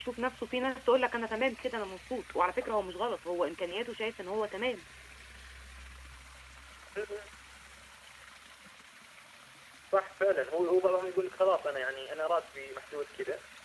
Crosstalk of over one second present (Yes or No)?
No